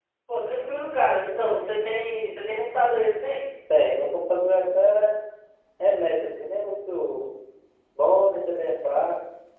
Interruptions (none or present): none